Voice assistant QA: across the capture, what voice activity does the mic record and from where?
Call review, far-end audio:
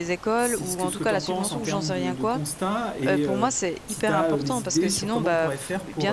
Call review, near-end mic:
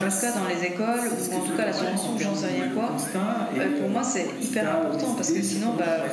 both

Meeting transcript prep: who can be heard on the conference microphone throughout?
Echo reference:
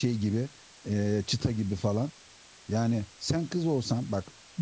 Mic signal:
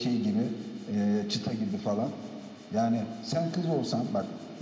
echo only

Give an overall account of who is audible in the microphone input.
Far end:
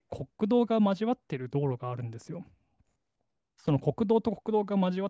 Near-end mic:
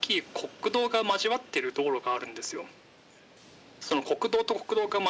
echo only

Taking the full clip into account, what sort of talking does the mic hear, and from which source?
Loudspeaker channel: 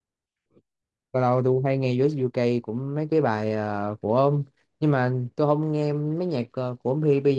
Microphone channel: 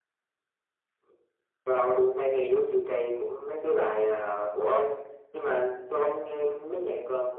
echo only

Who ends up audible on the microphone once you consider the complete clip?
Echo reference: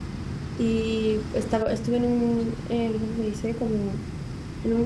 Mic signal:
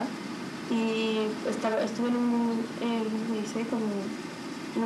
echo only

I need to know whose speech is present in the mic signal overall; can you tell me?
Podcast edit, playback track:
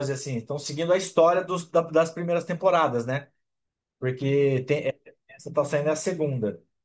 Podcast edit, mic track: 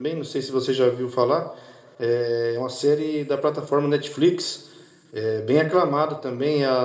user only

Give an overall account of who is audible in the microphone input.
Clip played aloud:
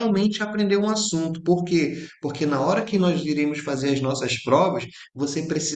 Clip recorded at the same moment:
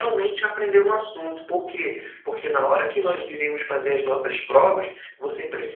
echo only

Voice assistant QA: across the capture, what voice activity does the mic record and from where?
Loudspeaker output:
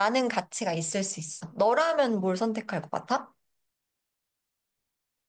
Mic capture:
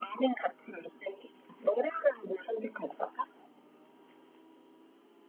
echo only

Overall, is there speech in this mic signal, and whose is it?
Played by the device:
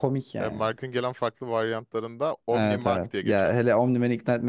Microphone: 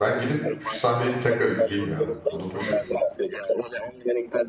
both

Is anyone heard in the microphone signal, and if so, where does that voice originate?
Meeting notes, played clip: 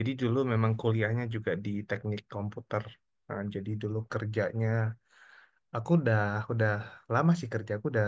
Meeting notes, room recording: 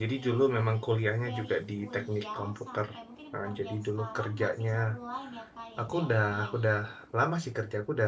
both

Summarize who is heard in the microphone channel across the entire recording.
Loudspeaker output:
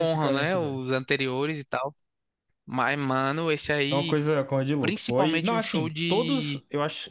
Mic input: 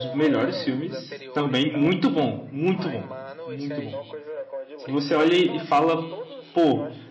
both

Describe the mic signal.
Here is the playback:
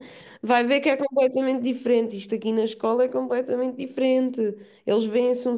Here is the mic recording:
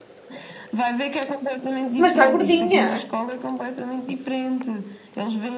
both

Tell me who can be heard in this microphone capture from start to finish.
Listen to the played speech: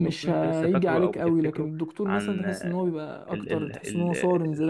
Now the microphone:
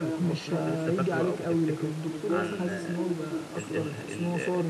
both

